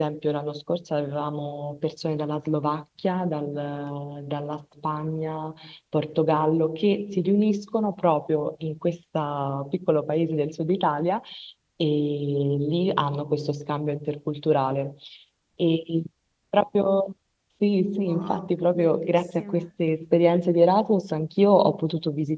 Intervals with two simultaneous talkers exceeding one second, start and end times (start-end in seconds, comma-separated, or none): 18.0-19.6